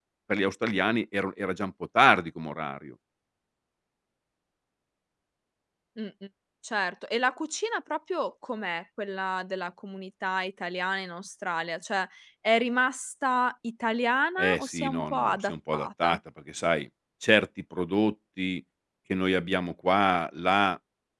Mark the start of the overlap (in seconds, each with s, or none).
14.4 s